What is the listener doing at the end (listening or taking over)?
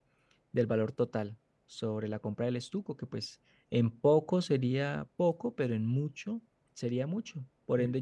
taking over